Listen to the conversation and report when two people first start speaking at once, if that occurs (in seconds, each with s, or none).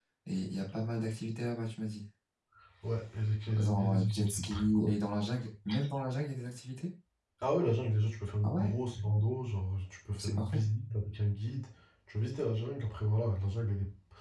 3.6 s